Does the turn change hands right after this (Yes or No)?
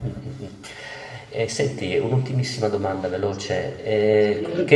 No